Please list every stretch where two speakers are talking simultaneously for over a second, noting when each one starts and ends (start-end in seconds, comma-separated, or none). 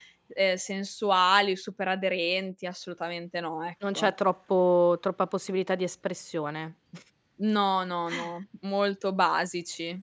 none